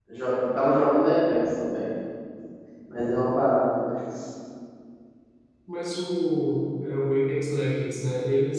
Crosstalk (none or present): none